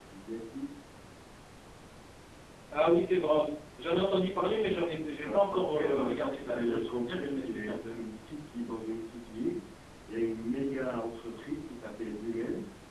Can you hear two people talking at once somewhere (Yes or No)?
Yes